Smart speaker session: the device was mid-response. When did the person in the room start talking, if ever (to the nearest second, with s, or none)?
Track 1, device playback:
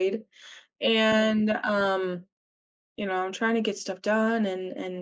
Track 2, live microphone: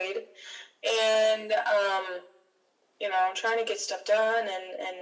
none